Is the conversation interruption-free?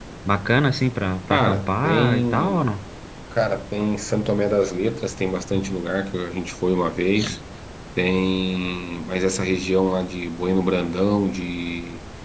No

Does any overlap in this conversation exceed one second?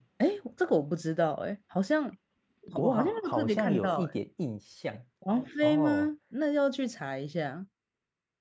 Yes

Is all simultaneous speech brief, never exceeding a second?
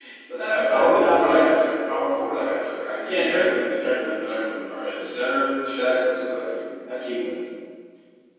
No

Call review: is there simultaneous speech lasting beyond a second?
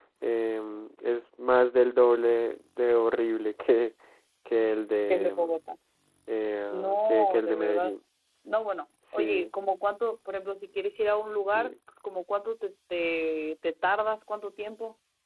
Yes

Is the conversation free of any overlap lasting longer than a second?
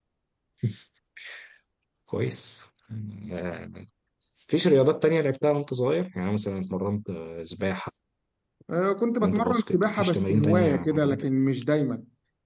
No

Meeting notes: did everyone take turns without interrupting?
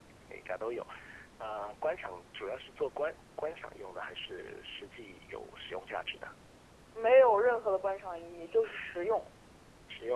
Yes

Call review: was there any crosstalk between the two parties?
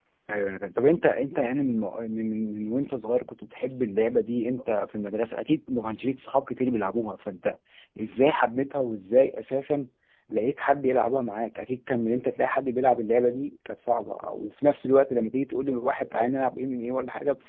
No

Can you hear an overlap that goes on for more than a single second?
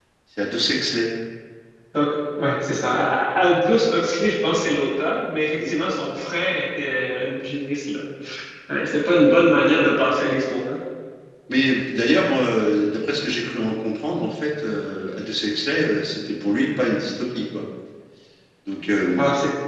No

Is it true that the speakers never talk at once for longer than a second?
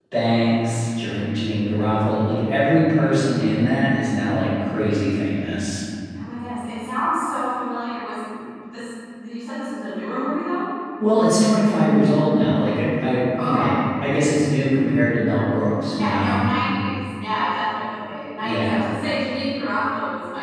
Yes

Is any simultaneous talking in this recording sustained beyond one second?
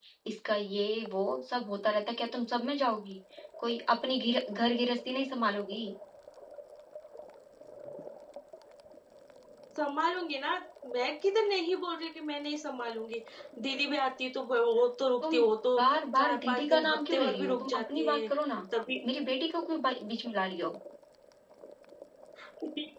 Yes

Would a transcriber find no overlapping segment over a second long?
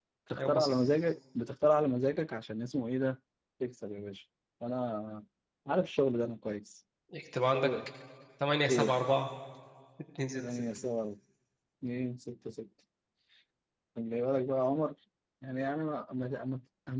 Yes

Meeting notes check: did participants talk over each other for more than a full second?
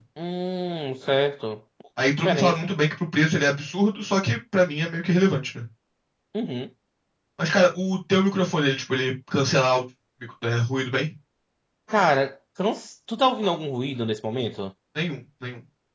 No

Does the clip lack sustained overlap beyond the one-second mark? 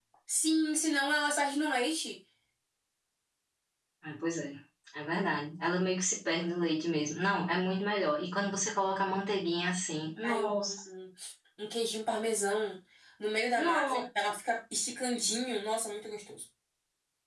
Yes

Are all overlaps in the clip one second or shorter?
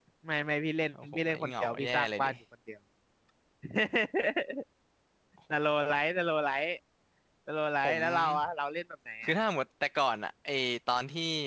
No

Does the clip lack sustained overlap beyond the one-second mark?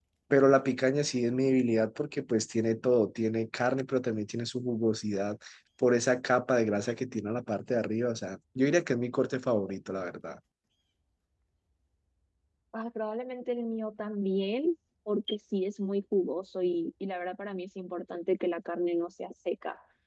Yes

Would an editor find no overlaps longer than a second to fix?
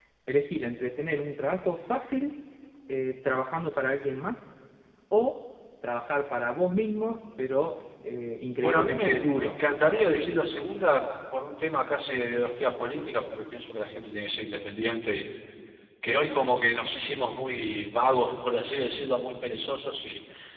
No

